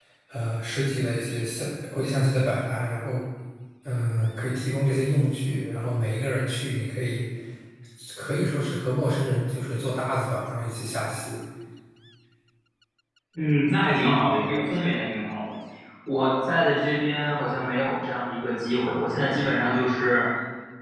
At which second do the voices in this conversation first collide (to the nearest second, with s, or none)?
none